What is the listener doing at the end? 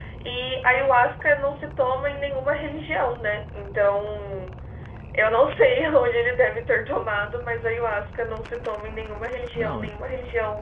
listening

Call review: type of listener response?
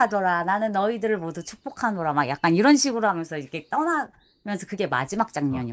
taking over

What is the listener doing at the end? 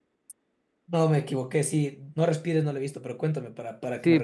taking over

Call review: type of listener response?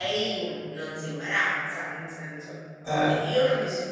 listening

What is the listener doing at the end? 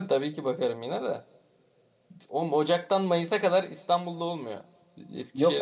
taking over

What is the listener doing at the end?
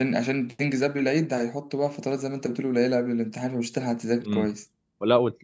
taking over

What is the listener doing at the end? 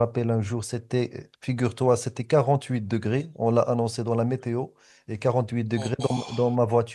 listening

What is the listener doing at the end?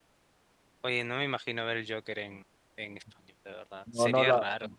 taking over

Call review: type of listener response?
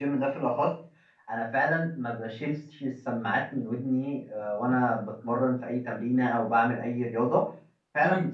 listening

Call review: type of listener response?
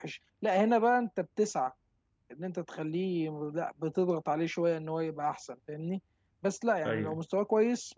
listening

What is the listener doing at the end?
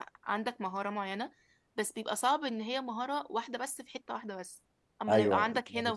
taking over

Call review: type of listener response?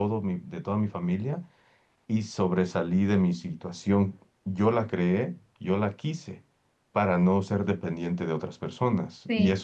listening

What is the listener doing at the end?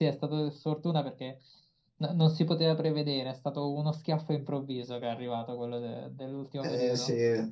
taking over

